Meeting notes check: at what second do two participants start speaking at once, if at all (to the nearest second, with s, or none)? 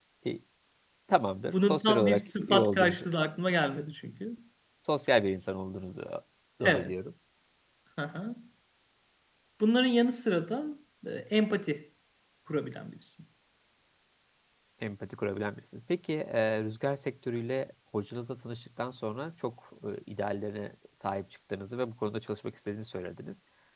2 s